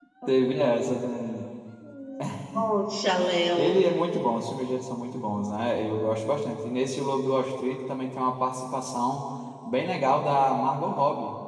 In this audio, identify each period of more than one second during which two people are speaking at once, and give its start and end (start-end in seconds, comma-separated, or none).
none